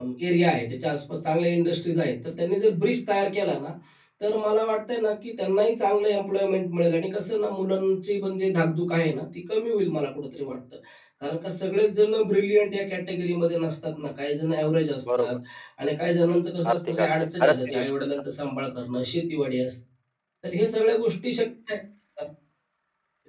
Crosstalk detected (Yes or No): Yes